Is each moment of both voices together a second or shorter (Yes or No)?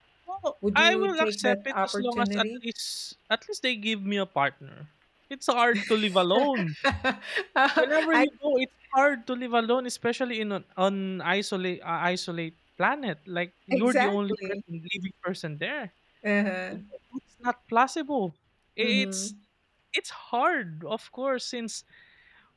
No